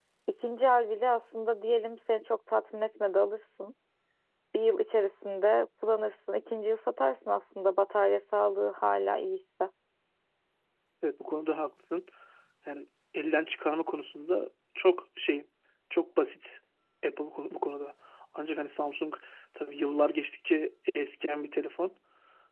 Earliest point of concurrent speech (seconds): none

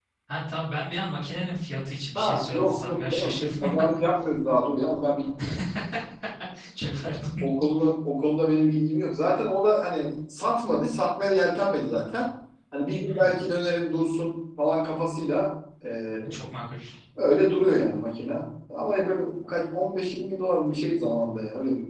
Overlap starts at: 2.1 s

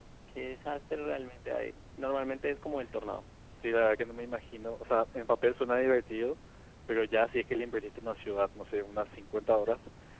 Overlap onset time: none

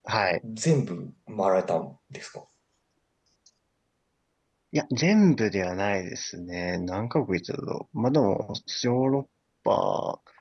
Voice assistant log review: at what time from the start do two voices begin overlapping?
none

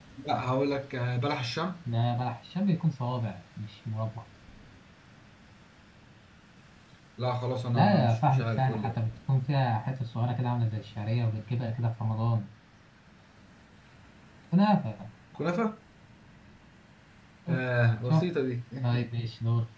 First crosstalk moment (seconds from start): 7.7 s

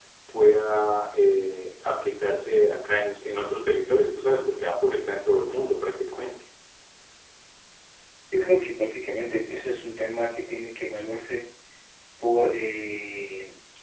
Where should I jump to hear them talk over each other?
none

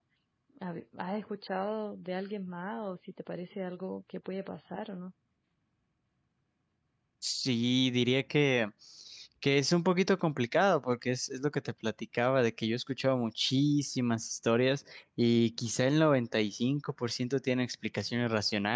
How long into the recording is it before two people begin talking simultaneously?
none

